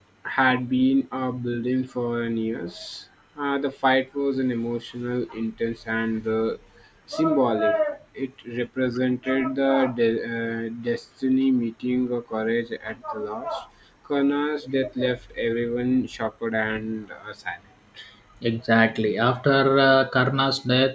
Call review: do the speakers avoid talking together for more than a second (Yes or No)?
Yes